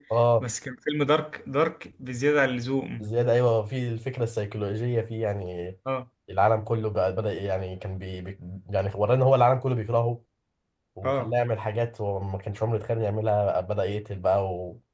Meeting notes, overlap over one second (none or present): none